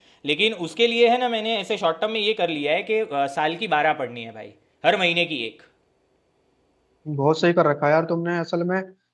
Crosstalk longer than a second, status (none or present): none